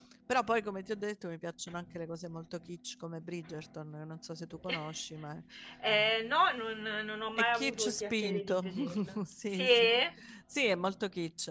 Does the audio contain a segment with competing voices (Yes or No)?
Yes